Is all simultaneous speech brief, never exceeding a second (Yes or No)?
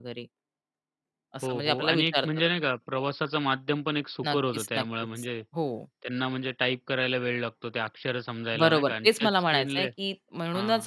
No